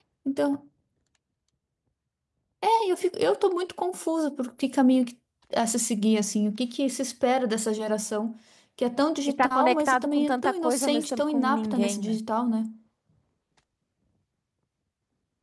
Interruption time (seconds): 9 s

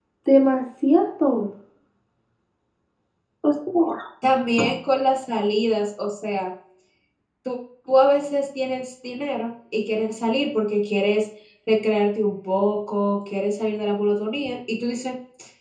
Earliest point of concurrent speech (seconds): none

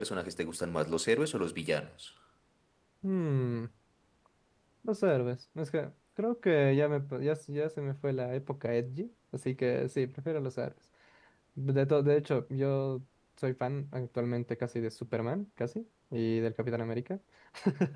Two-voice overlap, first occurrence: none

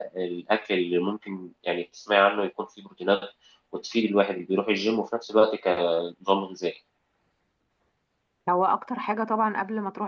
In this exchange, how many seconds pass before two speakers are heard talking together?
none

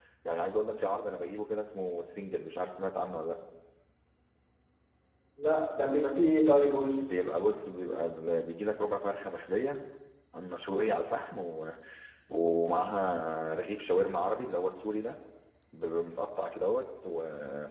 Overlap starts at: none

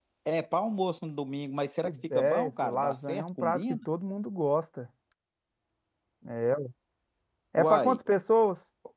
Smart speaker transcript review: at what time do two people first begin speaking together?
2 s

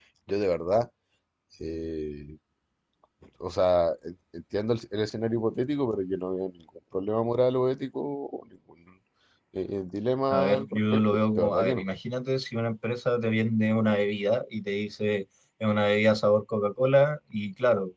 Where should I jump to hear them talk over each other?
10 s

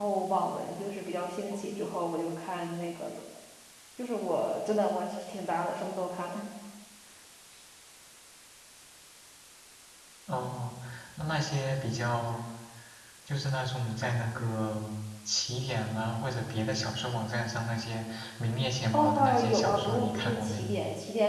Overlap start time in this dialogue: 19 s

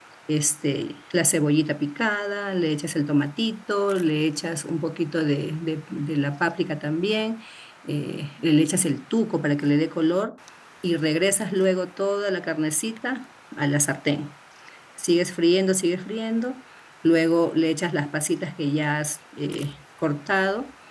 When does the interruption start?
none

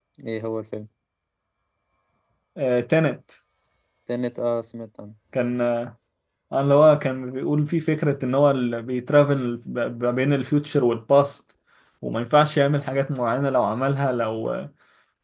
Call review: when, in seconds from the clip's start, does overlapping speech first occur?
none

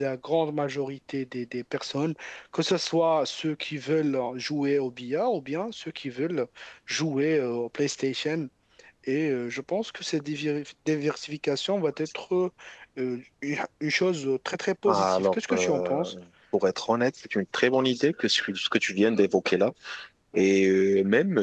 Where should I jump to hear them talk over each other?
15 s

